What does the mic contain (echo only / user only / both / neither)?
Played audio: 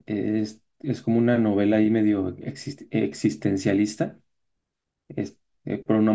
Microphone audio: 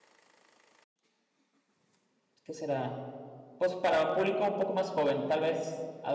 user only